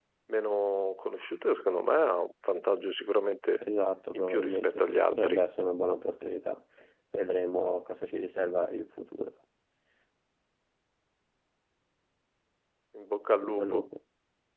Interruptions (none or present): present